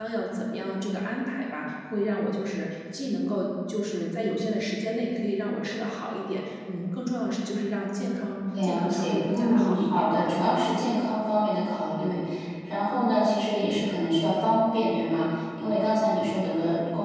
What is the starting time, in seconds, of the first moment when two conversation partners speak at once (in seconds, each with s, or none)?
8.5 s